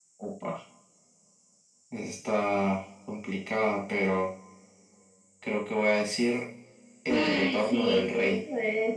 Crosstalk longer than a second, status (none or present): present